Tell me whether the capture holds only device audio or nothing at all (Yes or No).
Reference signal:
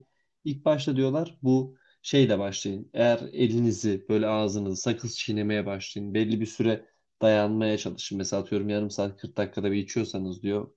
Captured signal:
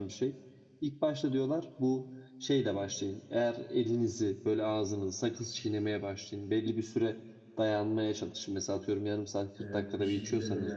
No